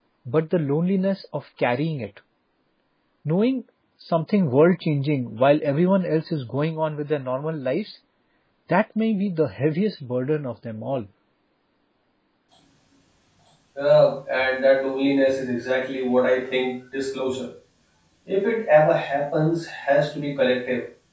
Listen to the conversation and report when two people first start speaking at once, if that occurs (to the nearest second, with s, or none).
none